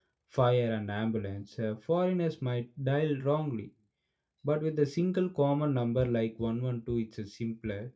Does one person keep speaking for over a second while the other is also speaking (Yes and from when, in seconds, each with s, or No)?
No